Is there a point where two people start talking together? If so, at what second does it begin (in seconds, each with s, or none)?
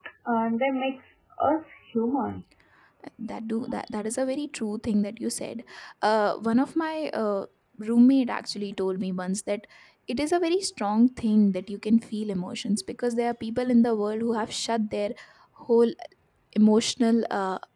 none